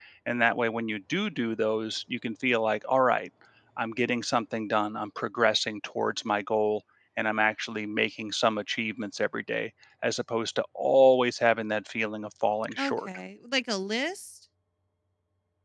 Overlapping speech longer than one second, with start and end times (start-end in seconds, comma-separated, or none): none